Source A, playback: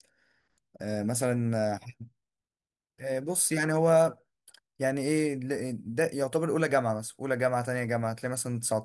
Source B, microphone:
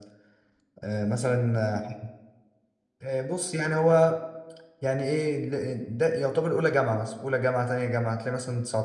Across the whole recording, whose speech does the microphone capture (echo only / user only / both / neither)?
echo only